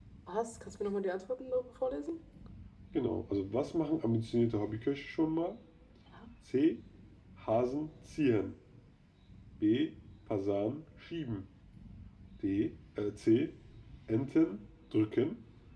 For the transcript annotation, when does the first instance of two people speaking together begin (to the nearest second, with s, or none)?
none